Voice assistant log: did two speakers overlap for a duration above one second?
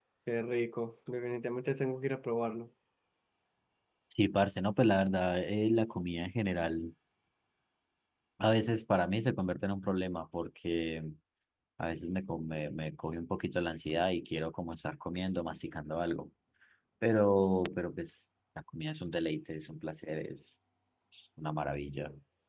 No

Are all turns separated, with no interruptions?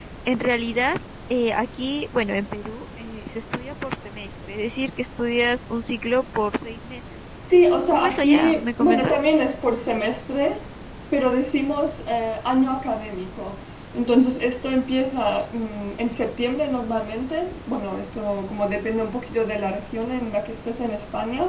No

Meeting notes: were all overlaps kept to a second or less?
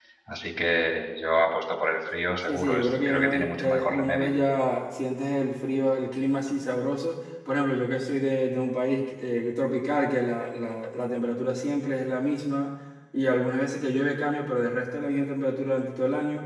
No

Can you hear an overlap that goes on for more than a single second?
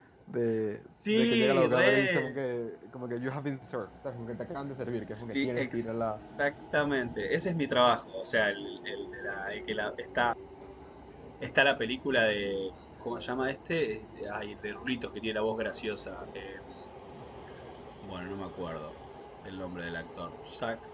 Yes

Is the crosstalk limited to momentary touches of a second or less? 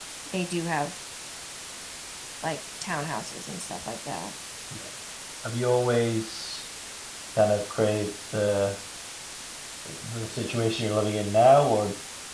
Yes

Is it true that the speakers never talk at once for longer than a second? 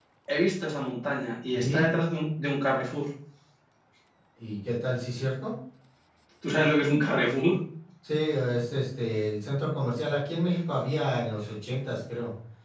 Yes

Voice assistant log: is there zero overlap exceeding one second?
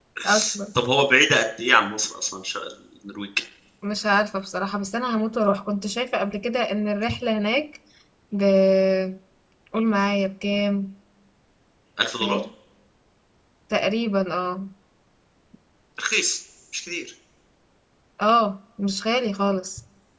Yes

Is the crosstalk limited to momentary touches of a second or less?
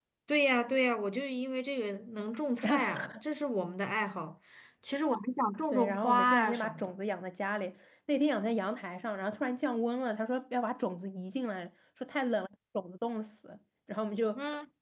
No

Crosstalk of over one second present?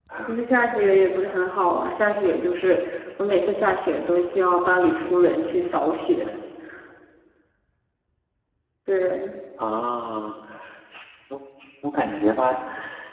No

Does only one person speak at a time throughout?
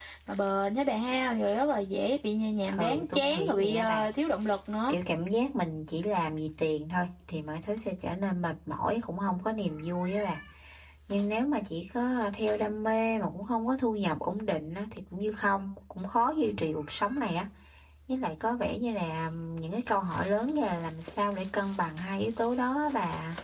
No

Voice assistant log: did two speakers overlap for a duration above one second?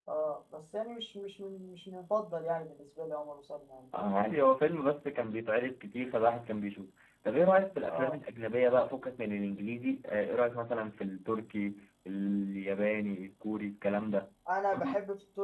No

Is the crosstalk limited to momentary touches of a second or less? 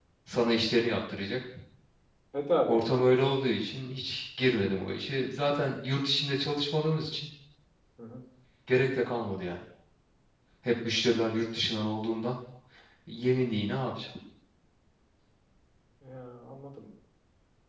Yes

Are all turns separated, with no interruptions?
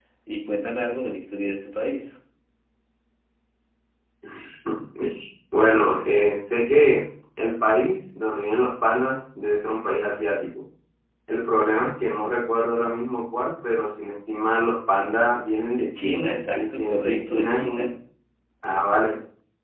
No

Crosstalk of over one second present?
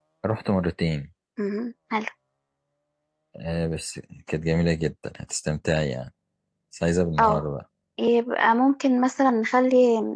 No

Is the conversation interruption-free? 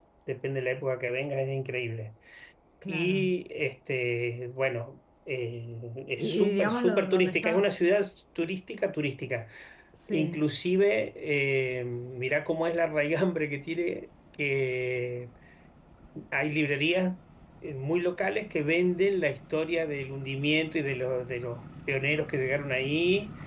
No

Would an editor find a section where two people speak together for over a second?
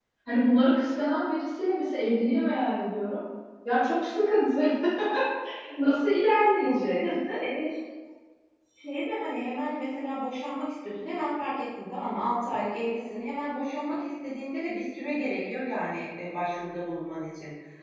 No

